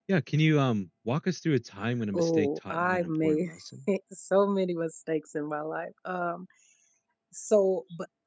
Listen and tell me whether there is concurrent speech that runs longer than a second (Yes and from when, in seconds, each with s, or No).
Yes, from 2.1 s